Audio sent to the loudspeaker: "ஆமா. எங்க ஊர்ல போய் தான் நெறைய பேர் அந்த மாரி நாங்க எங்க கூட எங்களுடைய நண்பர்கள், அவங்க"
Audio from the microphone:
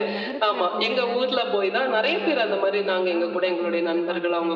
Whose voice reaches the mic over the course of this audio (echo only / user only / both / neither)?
both